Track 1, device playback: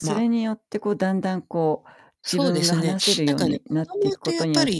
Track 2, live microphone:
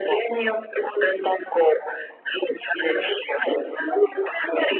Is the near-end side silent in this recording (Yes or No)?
Yes